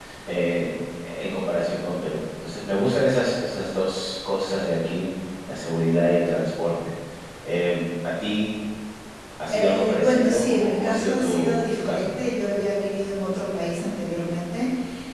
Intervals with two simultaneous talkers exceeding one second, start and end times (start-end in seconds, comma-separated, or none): 9.5-12.1